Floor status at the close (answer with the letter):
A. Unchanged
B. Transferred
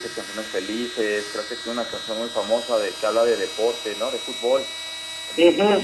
B